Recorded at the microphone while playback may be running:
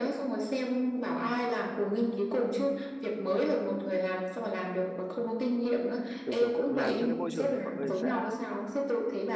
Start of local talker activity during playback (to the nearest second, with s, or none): 6 s